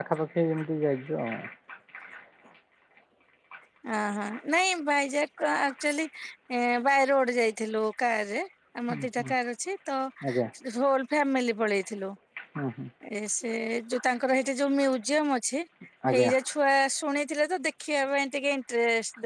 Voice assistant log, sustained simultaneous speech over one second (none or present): none